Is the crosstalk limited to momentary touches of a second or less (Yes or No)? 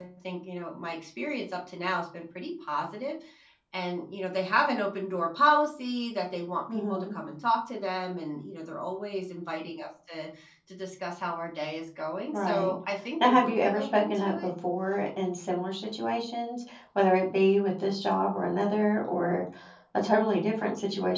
No